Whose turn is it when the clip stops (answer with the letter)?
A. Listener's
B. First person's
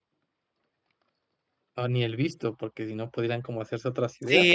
A